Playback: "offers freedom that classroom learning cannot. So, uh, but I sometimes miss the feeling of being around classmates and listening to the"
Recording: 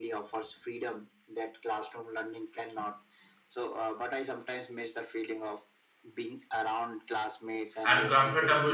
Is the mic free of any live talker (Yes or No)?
No